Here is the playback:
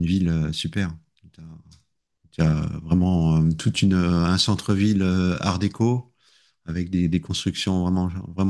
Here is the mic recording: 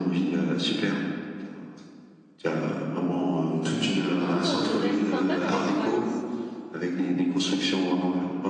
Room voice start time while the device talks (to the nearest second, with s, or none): 4 s